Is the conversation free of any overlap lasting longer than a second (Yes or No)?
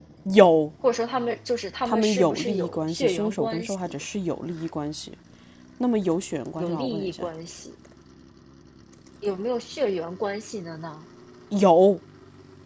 No